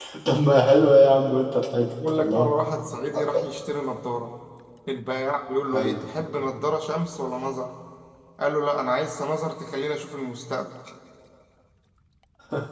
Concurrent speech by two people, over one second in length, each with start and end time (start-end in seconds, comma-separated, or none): none